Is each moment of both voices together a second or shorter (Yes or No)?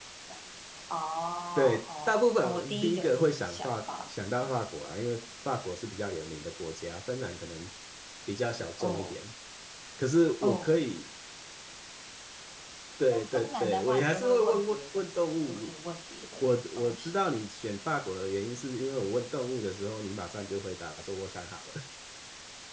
No